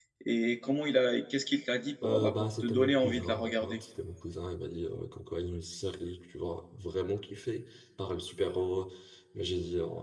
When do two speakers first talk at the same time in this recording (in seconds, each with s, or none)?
2.0 s